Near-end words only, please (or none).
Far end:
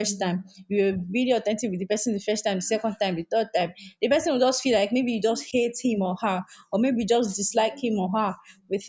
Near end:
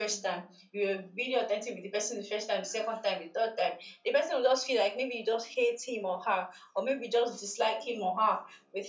none